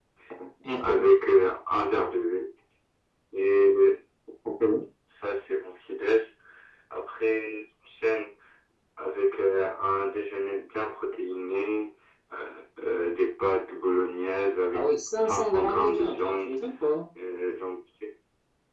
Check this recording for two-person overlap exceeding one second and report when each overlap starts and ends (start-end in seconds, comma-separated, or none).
14.7-16.6